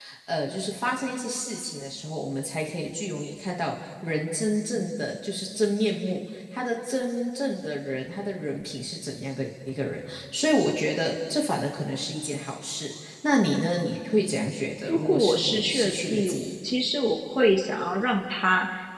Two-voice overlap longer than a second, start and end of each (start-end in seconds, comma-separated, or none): 14.9-16.4